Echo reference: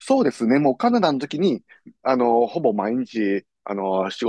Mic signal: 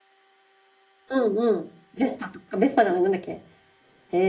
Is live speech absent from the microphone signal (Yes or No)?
No